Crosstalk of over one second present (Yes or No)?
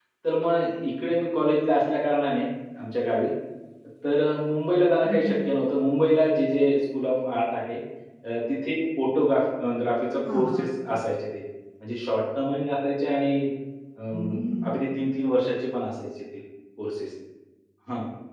No